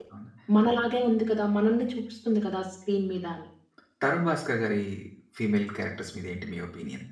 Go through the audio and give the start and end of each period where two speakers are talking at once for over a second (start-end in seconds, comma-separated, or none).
none